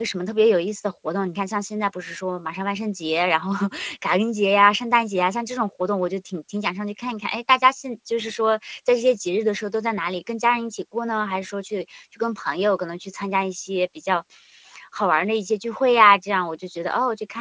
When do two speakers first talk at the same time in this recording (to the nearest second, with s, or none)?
none